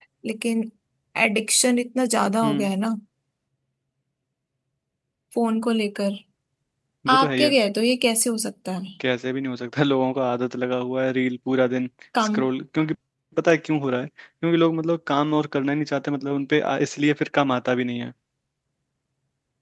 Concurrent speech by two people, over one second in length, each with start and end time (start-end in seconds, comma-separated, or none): none